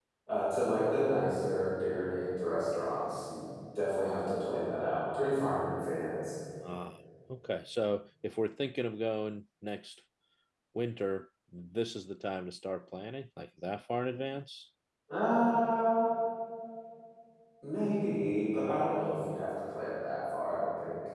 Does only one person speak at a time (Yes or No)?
Yes